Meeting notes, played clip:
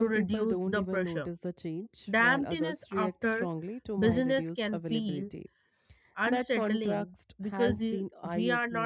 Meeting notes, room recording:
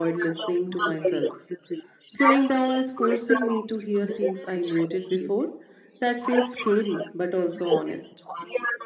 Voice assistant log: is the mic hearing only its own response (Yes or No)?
No